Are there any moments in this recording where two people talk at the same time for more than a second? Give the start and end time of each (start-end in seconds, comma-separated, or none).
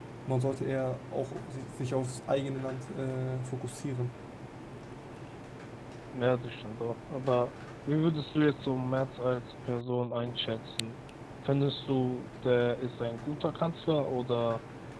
none